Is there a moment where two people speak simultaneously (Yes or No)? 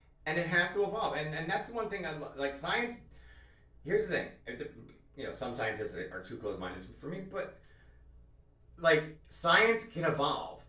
No